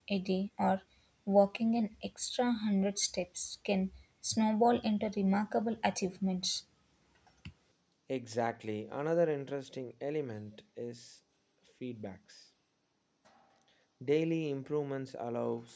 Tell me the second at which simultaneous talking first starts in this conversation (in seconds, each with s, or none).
none